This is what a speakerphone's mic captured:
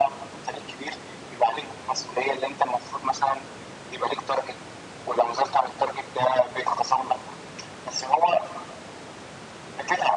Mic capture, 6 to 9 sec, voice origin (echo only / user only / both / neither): echo only